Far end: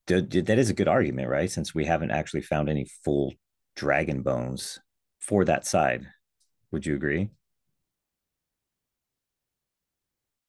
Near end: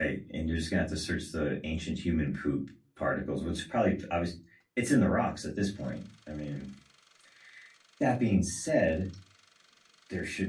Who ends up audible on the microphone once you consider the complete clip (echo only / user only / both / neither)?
user only